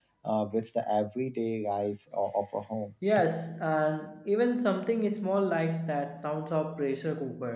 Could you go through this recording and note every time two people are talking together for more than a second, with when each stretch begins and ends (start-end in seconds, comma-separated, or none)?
none